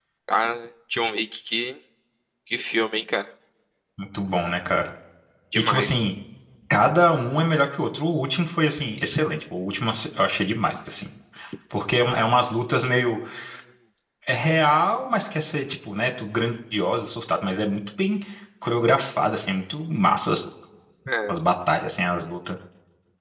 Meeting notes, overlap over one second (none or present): none